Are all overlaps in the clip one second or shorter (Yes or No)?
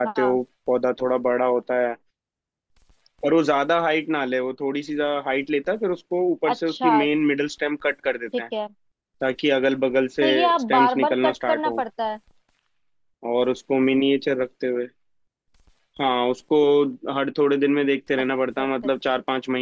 No